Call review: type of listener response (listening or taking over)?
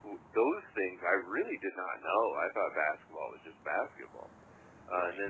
listening